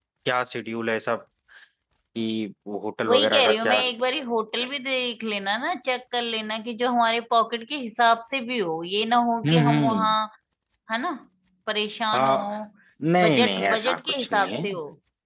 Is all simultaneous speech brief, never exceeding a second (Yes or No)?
No